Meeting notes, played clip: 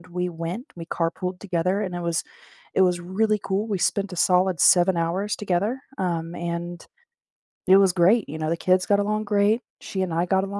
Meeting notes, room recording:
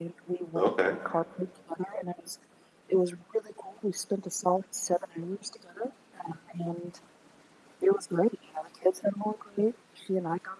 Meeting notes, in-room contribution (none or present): present